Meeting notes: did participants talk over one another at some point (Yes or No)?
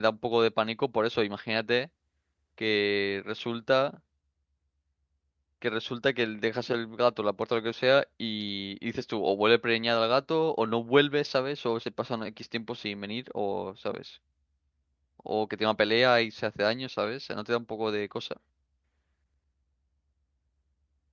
No